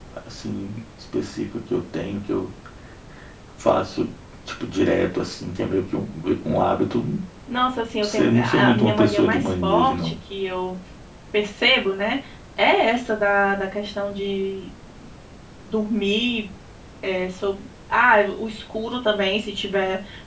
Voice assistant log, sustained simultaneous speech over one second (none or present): present